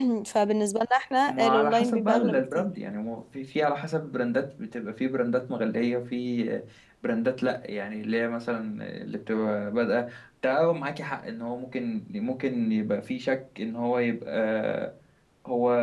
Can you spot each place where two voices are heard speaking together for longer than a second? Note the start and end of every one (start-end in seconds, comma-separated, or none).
1.3-2.7